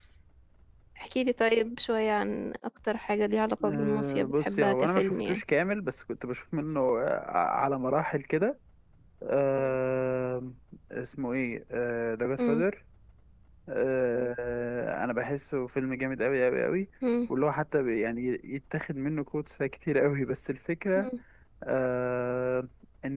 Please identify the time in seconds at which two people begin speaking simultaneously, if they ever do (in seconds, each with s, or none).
3.6 s